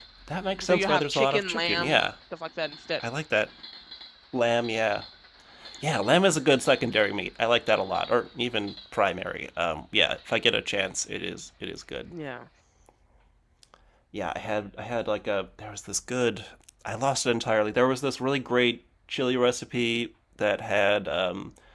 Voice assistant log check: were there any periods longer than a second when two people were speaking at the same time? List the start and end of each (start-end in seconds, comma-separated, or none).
0.6-2.0